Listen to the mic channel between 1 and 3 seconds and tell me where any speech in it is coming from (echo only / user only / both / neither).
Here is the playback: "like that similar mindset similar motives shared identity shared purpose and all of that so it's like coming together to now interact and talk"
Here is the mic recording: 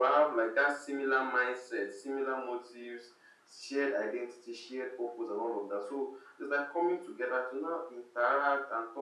echo only